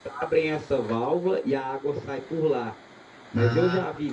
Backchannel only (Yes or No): Yes